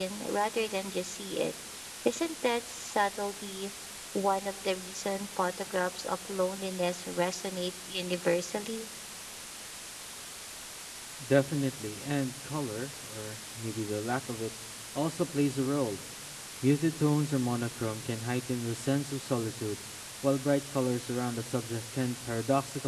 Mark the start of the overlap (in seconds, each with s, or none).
none